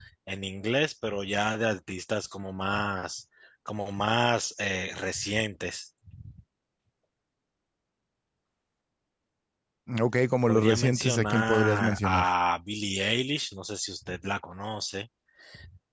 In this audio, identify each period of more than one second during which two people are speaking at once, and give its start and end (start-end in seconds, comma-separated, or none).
10.5-12.3